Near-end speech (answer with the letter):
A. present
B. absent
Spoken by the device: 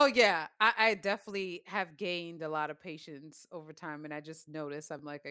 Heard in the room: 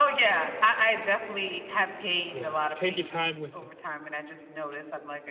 A